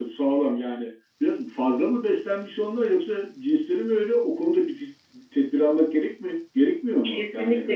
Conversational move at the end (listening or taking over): taking over